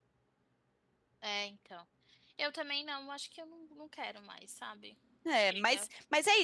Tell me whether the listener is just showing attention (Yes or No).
No